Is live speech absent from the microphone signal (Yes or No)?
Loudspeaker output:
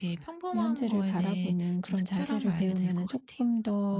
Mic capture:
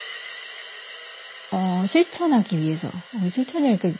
No